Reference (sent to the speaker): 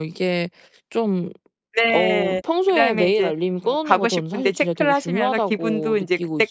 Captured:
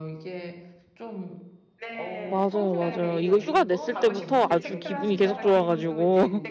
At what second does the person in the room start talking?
2.2 s

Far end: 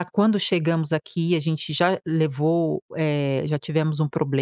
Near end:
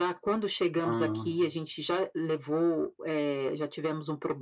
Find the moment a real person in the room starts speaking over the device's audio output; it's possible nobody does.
0.8 s

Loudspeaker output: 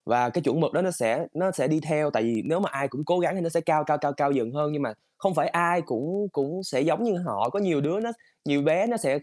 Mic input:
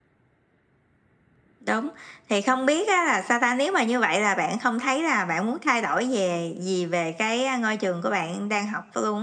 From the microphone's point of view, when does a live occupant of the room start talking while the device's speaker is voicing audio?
1.7 s

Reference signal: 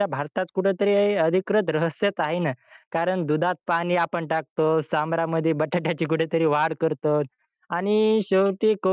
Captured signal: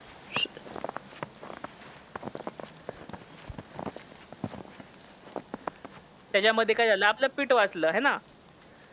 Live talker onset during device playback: 6.3 s

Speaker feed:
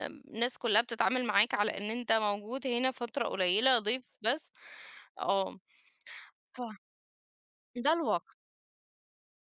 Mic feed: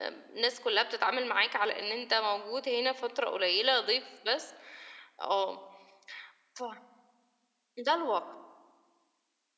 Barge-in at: none

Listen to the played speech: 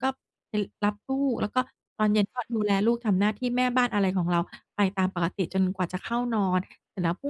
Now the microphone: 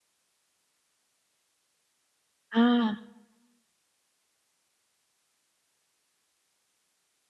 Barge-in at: 2.5 s

